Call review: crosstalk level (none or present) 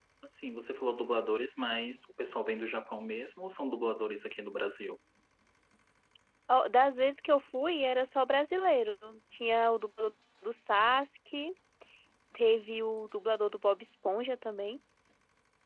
none